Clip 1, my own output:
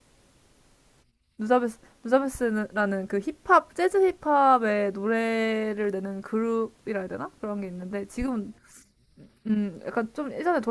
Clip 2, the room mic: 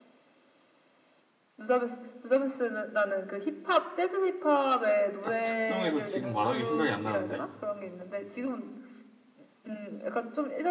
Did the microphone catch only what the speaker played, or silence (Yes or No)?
No